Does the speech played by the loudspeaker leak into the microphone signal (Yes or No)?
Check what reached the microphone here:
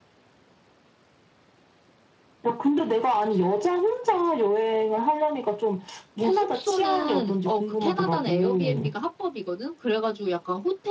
Yes